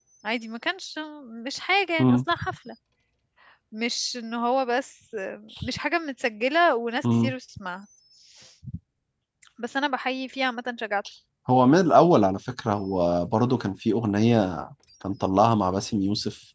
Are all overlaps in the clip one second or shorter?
Yes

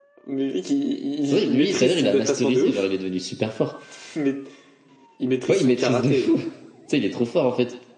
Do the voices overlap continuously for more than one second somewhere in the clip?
Yes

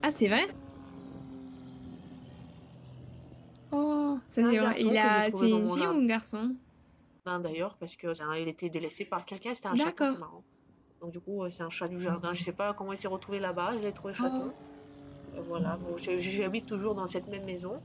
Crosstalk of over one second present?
Yes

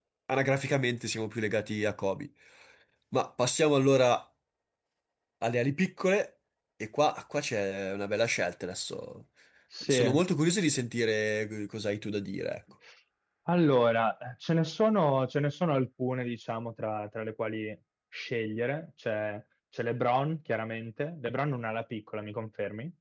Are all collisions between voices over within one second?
Yes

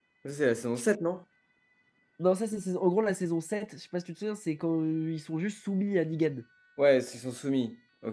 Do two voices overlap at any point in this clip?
No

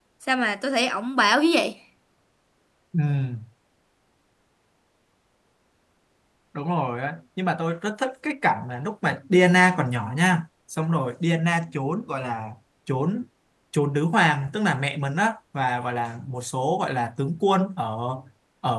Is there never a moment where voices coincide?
Yes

